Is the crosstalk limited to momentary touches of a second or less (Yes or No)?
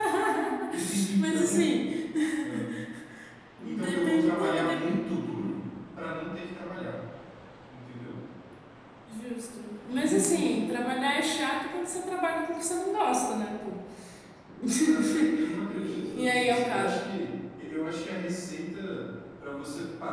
No